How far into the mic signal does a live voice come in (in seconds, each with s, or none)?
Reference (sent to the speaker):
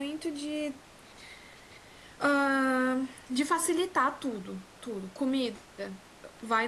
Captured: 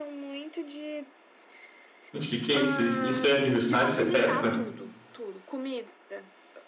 2.1 s